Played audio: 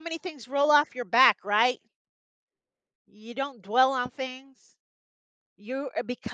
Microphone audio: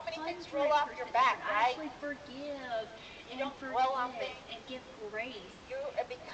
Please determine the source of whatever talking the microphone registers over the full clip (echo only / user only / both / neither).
both